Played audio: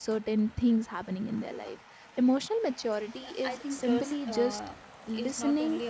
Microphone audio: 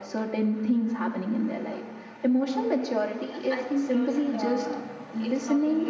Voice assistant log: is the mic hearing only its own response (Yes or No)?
Yes